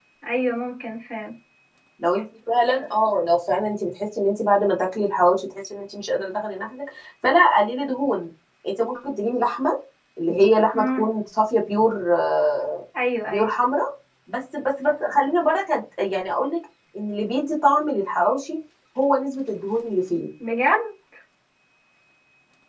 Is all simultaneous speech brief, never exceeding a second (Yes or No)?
Yes